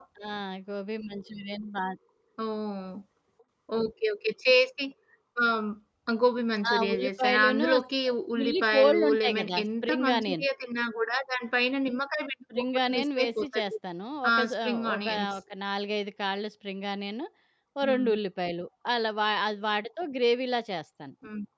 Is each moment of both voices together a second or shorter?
No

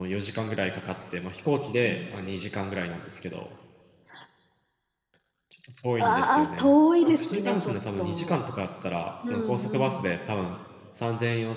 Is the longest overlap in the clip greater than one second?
Yes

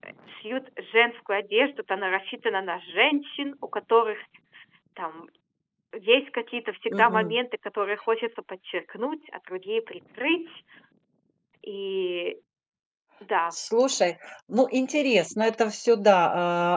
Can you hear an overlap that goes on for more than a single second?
No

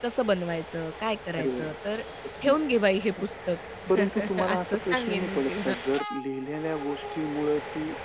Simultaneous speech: Yes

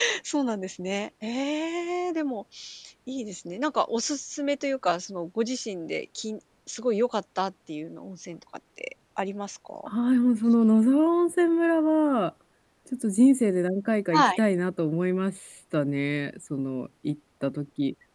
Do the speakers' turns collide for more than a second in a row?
No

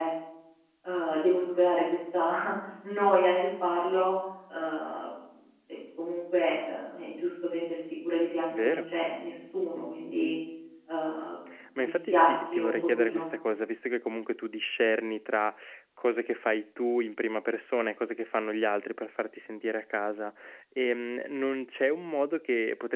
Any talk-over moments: Yes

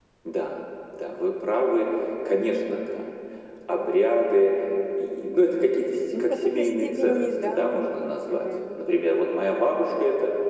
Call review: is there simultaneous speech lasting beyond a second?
Yes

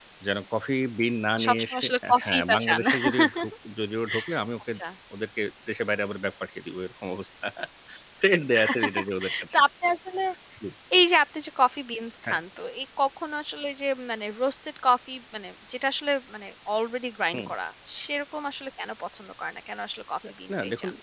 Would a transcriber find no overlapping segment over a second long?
No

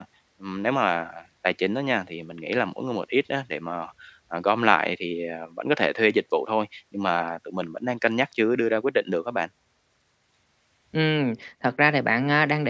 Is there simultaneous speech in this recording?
No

